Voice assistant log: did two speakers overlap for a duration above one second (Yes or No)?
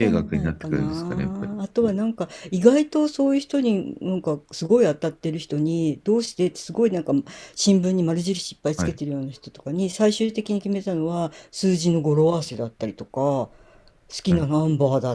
Yes